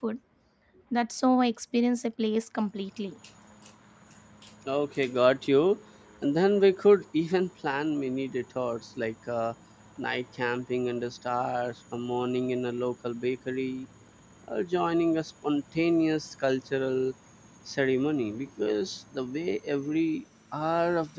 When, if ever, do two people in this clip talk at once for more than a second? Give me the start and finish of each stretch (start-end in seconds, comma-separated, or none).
none